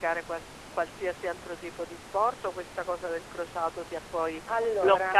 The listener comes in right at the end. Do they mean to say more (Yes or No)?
No